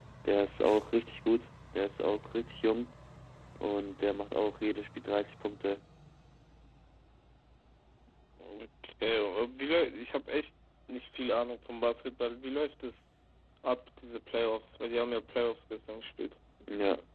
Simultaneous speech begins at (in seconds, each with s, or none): none